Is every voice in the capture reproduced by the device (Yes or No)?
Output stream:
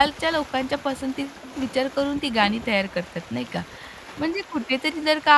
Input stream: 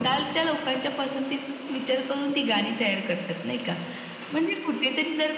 Yes